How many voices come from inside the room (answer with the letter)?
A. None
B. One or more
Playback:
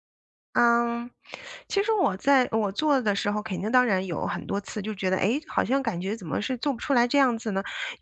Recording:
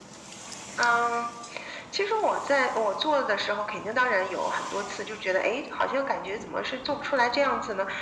A